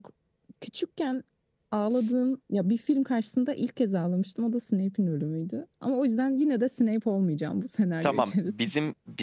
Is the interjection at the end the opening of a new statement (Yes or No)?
Yes